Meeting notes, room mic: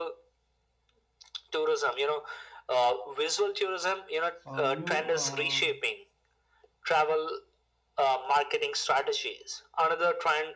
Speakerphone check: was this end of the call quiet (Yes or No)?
No